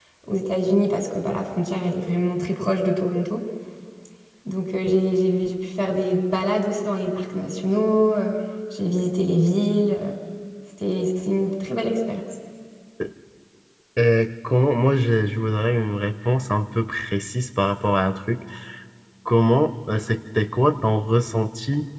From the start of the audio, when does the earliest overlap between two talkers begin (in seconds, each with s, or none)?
none